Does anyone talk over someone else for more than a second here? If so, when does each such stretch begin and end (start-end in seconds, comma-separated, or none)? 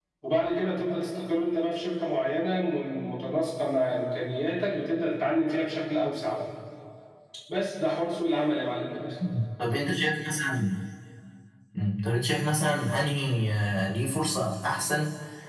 none